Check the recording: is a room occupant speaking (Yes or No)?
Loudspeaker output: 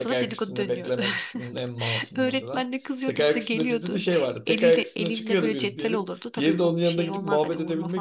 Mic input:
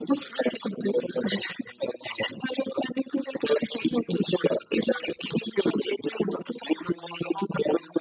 No